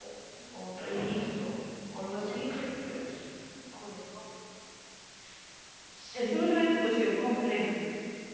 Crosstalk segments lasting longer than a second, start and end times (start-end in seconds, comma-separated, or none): 6.1-7.5